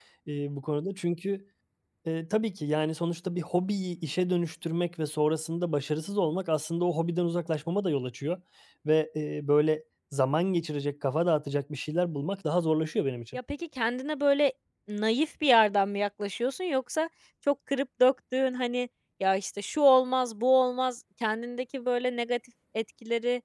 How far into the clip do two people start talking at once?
none

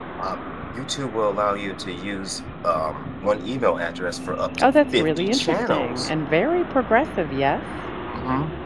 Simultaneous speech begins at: 4.6 s

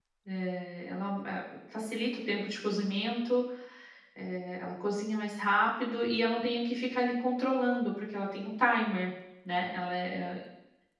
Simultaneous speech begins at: none

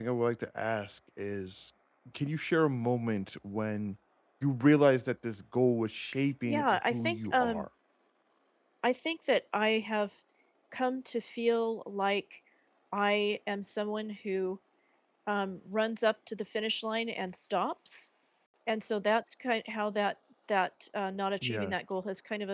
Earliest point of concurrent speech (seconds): 6.4 s

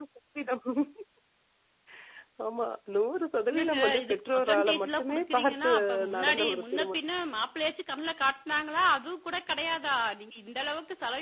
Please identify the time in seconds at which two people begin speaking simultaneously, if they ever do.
3.5 s

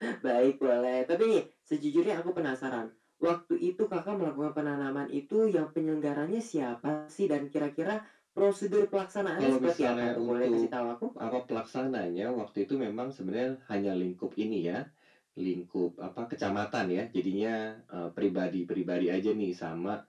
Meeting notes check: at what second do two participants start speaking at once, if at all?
9.4 s

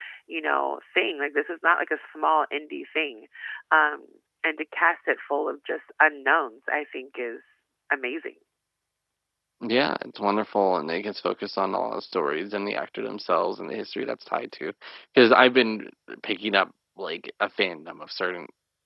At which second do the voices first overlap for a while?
none

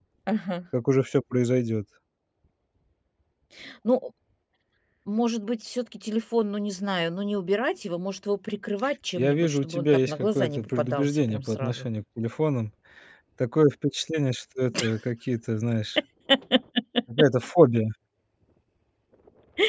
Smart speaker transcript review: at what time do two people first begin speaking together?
9.2 s

